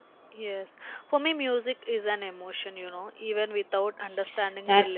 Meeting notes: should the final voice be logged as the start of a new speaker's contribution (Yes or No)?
Yes